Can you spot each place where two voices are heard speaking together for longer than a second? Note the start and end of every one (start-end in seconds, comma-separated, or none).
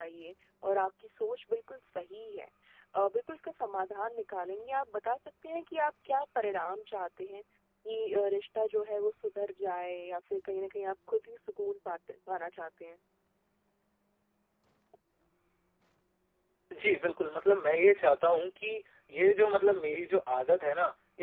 none